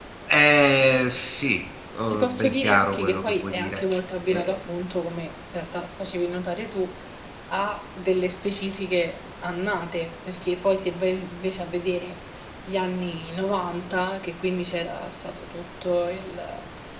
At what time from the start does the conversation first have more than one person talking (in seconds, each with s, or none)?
2.1 s